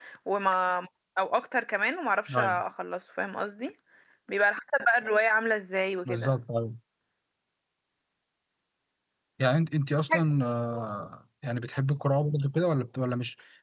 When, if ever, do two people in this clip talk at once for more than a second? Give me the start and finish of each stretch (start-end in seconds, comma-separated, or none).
none